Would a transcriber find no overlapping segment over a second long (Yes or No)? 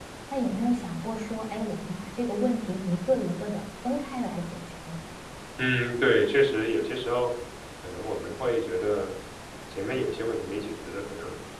Yes